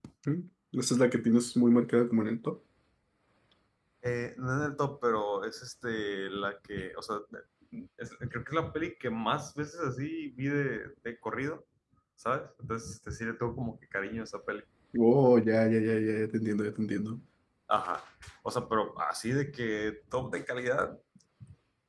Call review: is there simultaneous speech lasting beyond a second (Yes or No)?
No